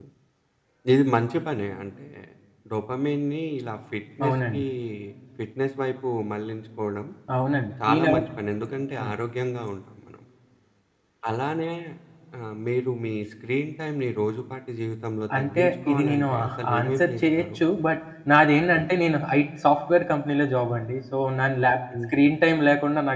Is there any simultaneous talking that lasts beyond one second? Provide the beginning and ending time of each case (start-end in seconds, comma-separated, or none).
15.4-17.6